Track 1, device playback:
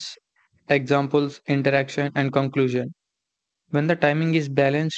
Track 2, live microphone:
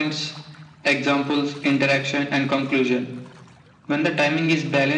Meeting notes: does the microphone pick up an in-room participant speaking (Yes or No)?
No